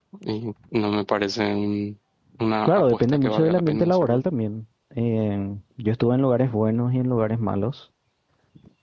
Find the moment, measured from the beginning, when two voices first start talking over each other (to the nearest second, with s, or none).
3 s